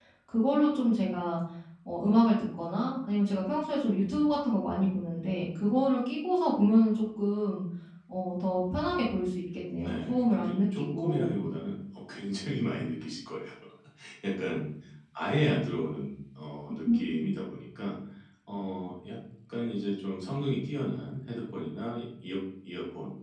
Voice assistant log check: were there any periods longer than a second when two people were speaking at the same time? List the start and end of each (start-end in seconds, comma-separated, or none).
9.8-11.3